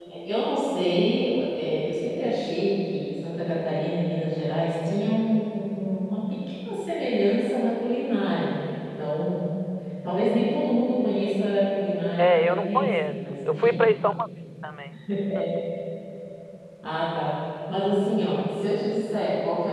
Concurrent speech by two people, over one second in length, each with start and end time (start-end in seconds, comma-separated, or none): 12.2-13.8